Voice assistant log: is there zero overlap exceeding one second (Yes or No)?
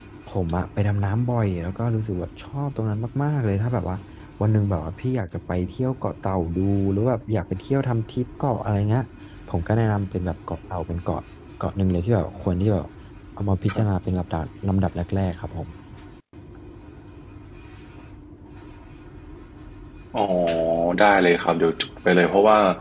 Yes